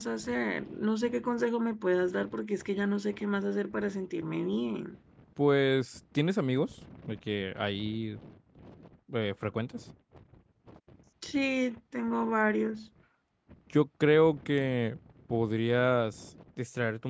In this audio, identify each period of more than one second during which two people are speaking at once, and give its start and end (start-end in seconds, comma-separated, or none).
none